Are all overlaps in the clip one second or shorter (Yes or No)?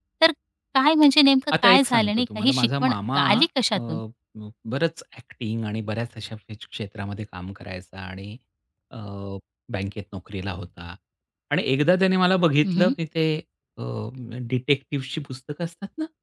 No